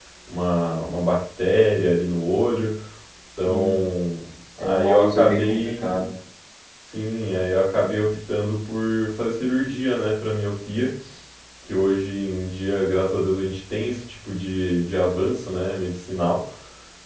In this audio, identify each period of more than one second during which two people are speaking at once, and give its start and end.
4.6-5.9

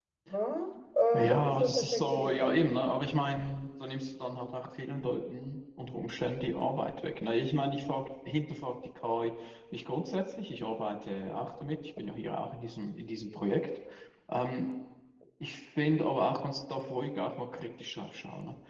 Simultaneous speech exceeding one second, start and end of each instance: 1.1-2.5

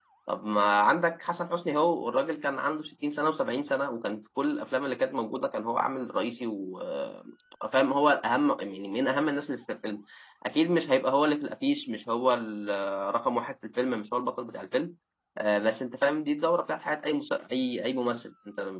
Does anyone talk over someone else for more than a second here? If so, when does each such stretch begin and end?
none

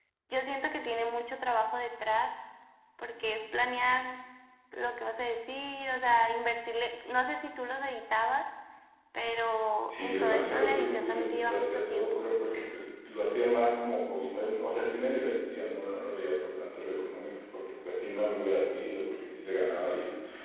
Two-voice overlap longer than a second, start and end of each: 9.9-12.2

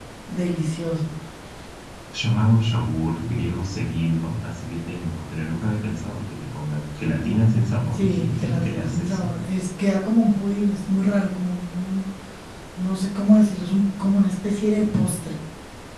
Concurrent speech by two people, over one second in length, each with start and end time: 7.9-9.3

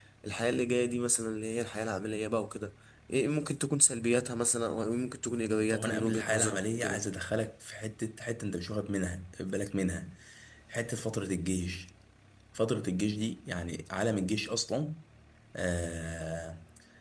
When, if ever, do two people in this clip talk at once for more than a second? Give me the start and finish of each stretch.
5.7-7.0

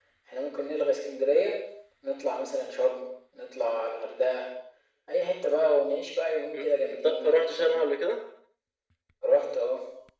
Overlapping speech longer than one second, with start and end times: 6.6-7.8

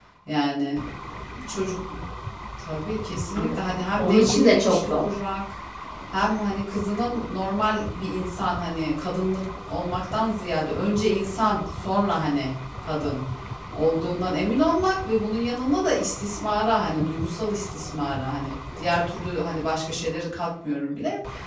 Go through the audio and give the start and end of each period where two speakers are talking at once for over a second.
3.4-5.0

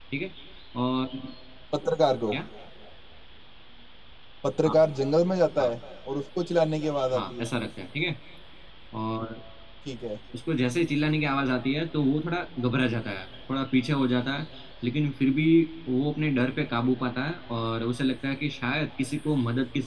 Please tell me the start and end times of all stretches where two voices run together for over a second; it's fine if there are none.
none

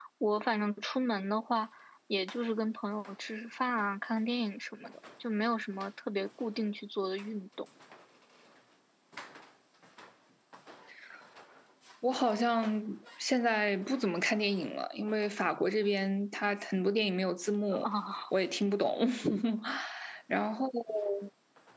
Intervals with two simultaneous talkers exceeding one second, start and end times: none

